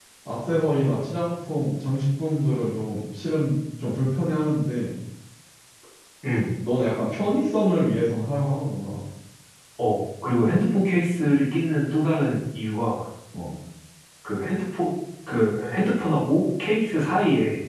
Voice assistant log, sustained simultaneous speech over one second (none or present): none